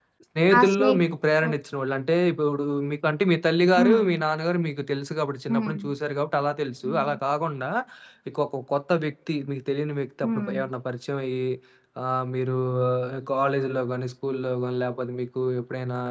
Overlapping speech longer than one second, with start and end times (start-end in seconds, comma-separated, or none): none